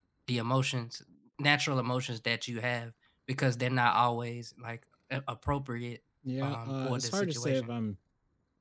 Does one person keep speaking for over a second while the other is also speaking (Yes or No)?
Yes